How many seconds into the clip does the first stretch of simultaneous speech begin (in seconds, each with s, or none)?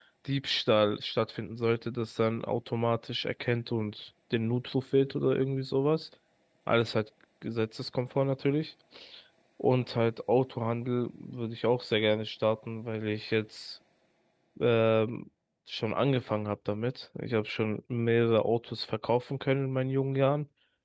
none